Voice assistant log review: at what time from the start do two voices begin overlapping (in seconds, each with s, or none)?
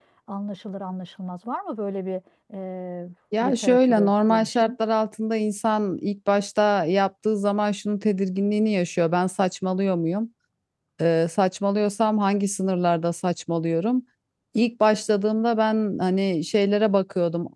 3.3 s